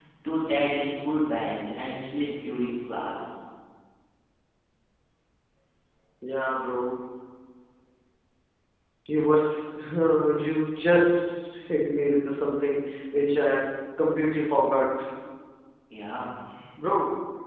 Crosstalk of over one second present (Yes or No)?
No